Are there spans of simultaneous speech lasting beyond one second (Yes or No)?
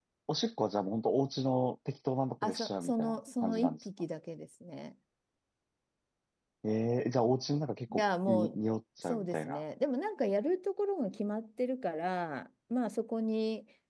Yes